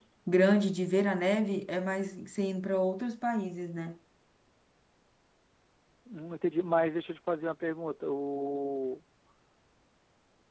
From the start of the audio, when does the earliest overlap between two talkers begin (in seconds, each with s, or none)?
none